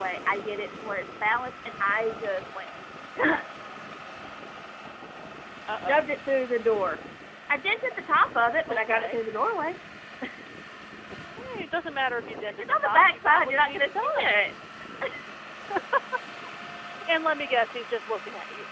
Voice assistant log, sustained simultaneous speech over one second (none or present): present